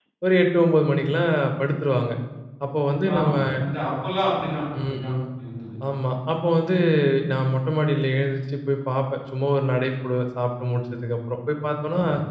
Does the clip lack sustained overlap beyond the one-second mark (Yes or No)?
Yes